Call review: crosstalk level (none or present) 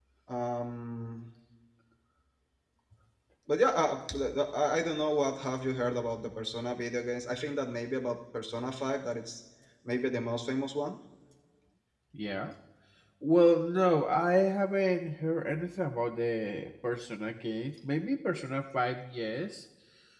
none